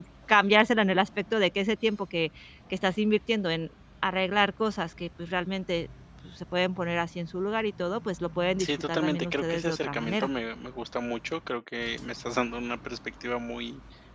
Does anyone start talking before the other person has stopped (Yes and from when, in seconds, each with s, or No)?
Yes, from 8.6 s